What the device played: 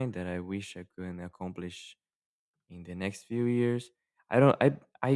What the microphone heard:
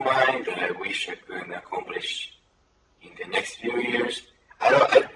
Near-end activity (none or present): none